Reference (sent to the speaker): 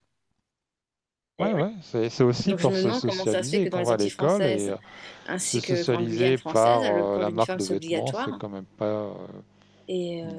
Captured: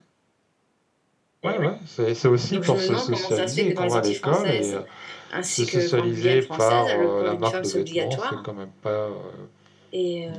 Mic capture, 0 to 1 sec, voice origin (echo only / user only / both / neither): neither